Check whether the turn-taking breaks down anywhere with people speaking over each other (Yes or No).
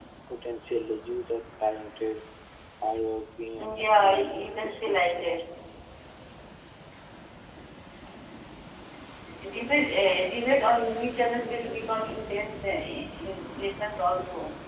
Yes